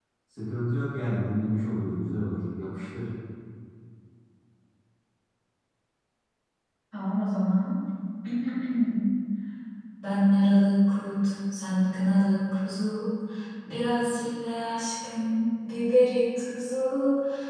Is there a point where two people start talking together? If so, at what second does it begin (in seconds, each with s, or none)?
none